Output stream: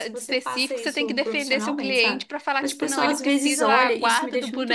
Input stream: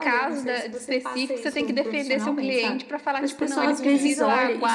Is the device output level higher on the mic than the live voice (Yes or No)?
Yes